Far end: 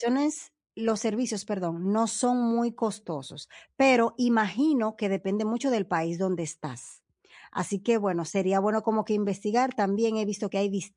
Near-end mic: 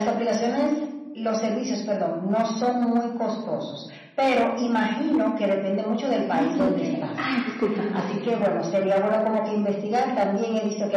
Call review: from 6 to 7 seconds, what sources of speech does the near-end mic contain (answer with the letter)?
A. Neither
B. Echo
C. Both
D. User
C